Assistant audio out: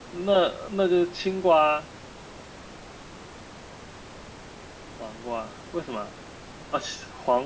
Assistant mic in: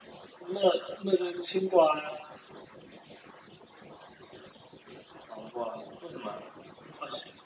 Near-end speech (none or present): none